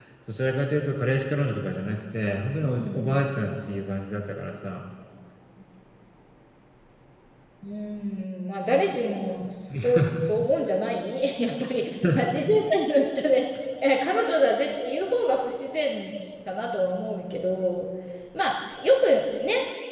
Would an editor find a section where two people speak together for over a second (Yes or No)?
No